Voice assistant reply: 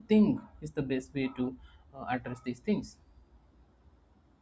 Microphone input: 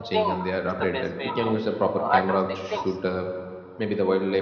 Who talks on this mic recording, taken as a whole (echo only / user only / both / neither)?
both